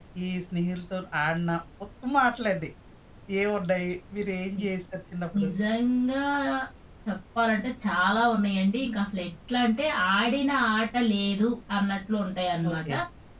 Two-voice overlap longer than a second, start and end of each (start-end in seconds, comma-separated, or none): none